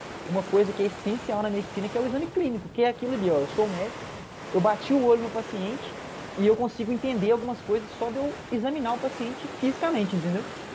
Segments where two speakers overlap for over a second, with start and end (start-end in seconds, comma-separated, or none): none